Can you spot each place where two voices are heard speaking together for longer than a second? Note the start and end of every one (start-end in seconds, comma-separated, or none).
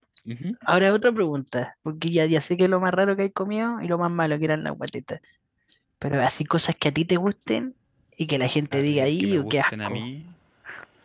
8.7-10.1